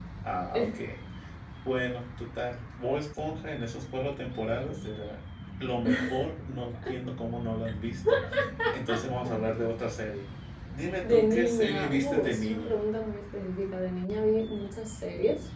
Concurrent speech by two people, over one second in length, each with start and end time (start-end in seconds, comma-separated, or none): 11.0-12.8